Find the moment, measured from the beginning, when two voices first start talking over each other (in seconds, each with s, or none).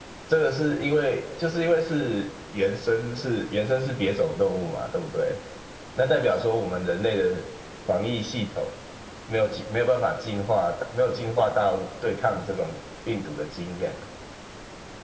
none